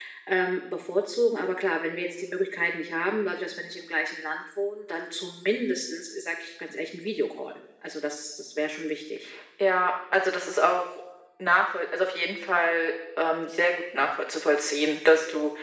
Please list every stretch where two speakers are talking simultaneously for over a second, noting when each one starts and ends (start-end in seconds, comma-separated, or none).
none